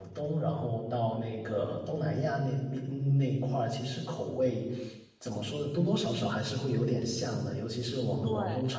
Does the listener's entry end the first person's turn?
No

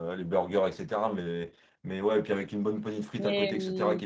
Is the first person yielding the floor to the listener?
No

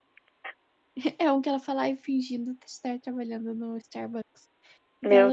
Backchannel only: Yes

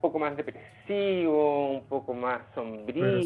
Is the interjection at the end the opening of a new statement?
No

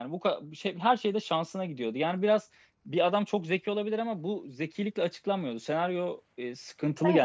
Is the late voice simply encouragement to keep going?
Yes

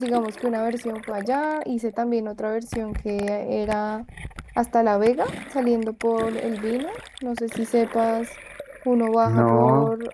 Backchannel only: Yes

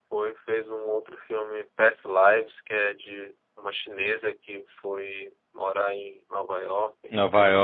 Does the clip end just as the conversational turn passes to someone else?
Yes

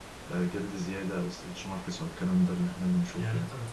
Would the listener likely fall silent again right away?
No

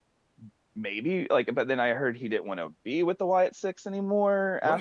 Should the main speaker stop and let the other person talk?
Yes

